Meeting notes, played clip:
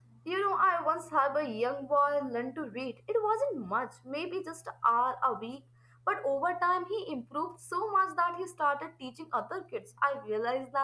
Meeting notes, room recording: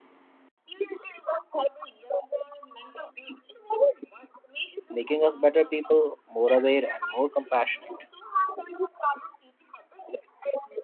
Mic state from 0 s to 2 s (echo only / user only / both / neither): echo only